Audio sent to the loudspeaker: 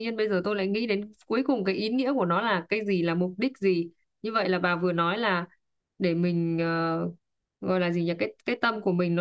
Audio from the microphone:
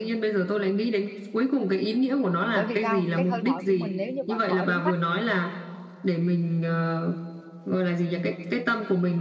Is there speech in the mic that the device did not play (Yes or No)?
Yes